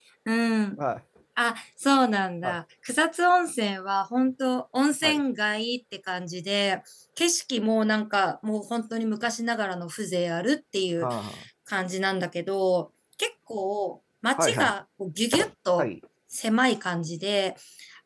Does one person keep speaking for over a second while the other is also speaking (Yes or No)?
No